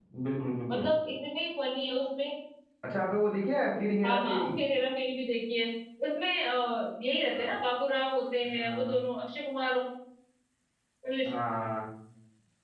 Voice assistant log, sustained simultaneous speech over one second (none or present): none